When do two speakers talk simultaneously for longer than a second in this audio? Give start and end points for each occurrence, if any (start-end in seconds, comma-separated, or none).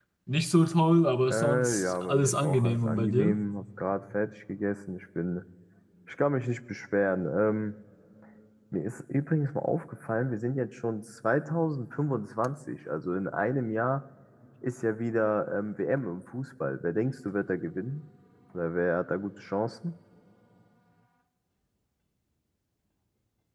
1.3-3.4